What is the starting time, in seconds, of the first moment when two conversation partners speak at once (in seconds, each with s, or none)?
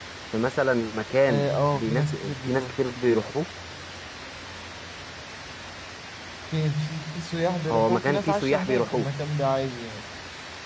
1.3 s